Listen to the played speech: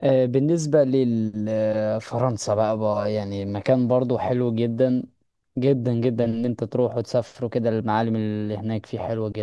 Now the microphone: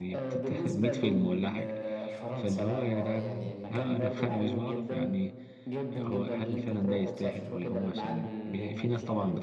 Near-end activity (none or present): present